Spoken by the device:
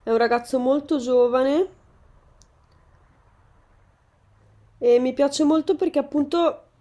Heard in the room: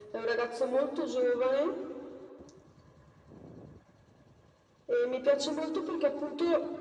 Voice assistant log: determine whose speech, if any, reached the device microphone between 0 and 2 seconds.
echo only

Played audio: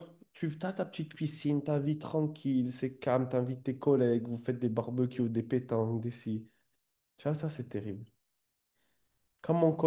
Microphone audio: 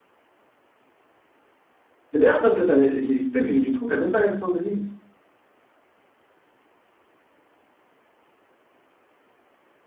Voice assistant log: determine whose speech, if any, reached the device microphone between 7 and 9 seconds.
neither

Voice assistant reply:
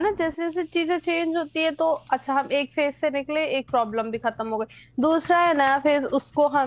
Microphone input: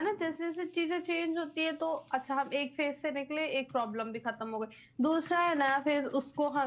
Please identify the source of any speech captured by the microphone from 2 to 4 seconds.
echo only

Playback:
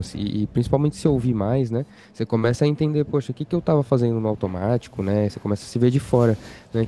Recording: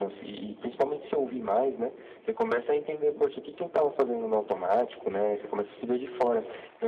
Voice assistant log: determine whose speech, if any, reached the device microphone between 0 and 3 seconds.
echo only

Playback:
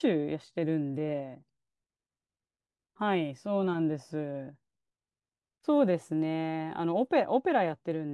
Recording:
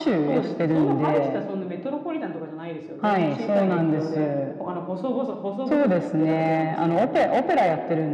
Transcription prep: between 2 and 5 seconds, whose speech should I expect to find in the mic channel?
both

